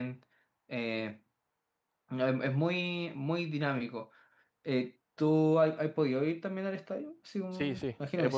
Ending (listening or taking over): taking over